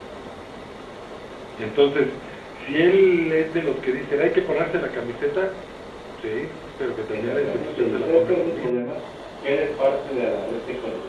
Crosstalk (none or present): present